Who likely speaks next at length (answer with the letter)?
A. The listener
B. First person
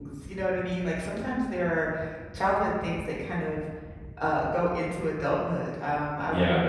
A